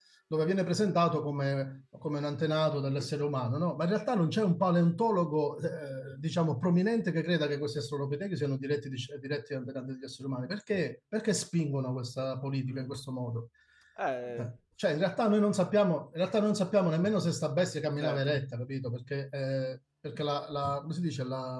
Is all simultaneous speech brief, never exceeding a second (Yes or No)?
Yes